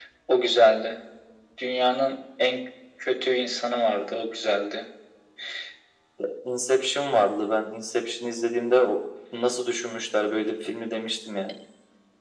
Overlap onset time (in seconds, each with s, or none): none